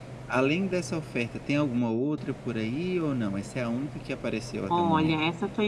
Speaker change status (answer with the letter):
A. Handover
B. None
A